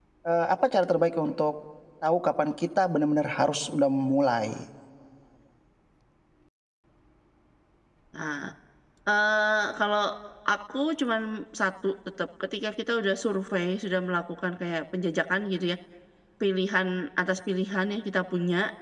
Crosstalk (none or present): none